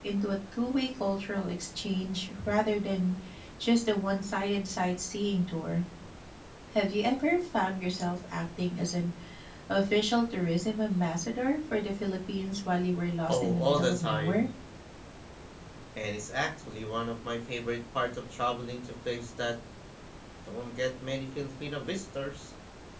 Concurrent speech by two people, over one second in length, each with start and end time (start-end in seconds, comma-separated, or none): 13.3-14.5